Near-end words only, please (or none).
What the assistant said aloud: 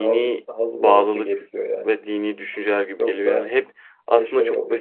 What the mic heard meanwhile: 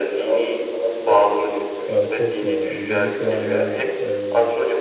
Ya çok ya. Özellikle yani e,